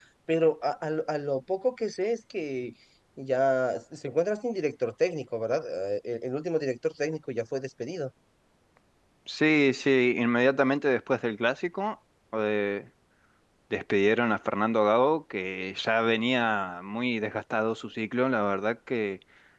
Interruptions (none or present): none